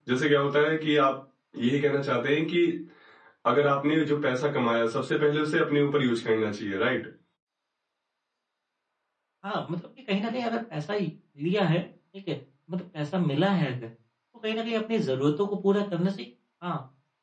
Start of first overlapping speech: none

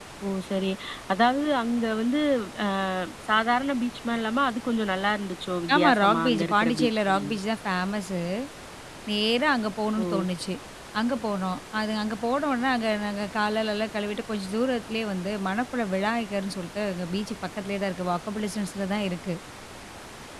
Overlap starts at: 5.8 s

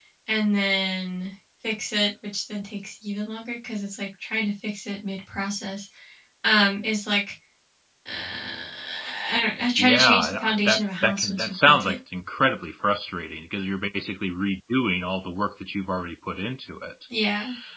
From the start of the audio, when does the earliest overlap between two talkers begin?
9.8 s

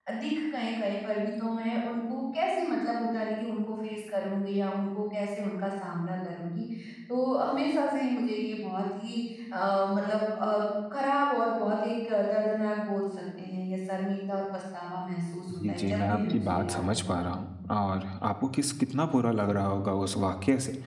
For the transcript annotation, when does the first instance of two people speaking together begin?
15.5 s

